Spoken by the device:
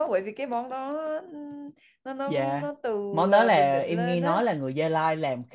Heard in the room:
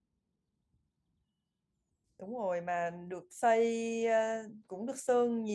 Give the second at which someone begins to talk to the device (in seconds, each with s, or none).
2.2 s